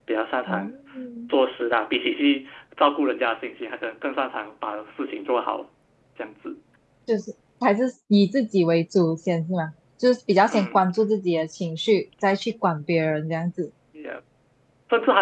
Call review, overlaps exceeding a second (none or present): none